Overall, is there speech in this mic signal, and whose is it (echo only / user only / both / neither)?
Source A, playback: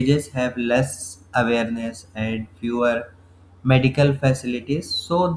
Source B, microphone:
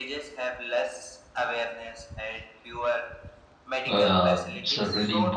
both